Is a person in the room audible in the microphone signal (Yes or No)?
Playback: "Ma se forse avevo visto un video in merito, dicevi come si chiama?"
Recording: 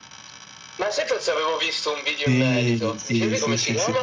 Yes